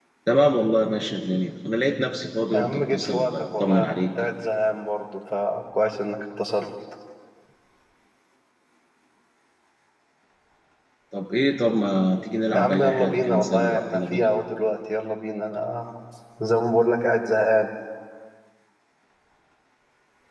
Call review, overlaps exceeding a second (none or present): present